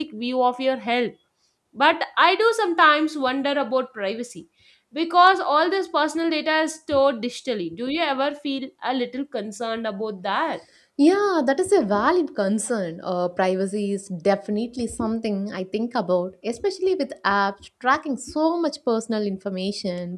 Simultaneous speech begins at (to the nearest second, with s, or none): none